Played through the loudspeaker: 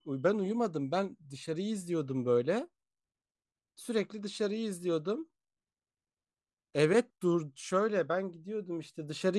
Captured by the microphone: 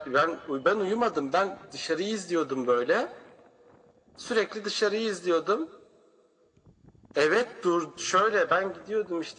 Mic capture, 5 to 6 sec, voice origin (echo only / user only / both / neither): echo only